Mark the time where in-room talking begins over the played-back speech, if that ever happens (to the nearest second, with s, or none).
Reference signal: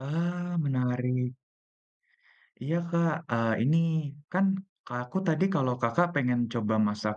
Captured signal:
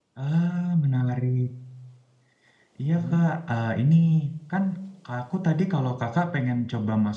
3 s